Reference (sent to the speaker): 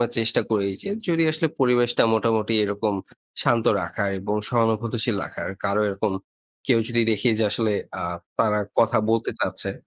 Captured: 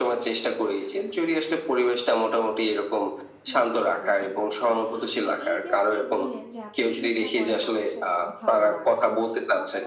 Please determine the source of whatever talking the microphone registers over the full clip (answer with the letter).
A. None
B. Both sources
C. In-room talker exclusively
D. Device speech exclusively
B